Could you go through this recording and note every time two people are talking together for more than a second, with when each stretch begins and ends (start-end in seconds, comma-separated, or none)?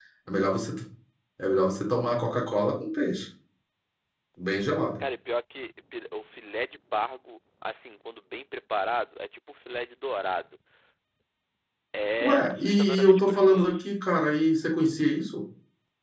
12.2-13.7